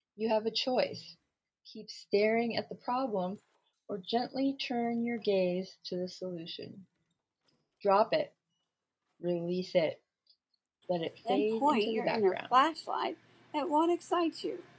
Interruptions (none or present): present